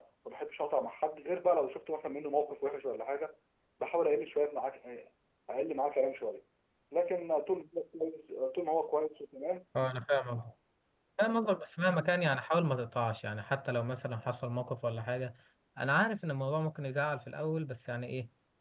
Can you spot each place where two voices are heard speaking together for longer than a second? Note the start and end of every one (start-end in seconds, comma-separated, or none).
none